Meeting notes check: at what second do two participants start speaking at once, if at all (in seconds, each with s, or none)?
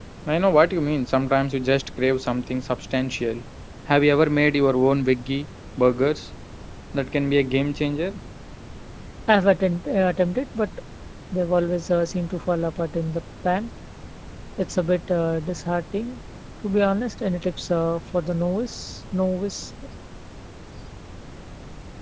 none